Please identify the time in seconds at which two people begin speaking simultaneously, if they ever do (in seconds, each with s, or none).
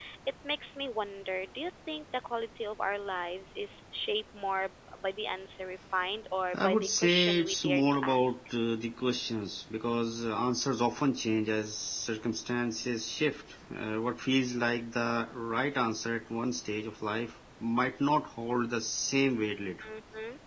6.5 s